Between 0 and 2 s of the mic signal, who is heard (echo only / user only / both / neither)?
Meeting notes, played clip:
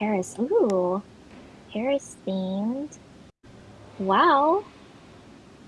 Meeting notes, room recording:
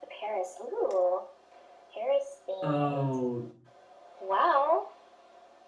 echo only